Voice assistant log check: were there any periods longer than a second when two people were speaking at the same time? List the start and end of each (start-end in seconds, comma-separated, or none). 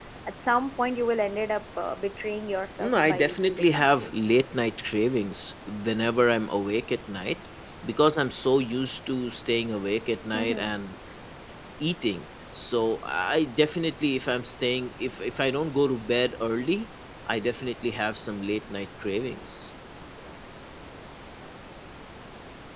2.8-4.1